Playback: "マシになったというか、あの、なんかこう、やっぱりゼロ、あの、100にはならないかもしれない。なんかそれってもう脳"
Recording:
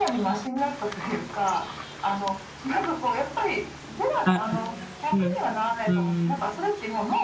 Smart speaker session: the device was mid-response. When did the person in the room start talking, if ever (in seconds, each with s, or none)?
4.2 s